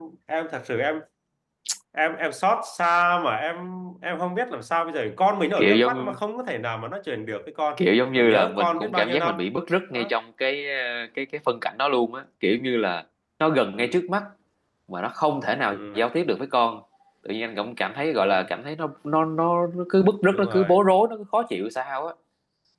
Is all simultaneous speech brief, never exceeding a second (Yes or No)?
No